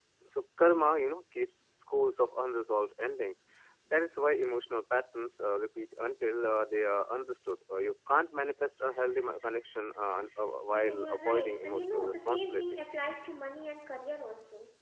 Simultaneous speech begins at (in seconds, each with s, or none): 10.7 s